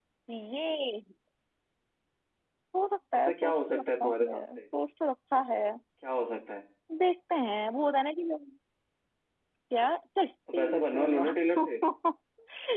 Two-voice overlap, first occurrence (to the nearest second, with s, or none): 3 s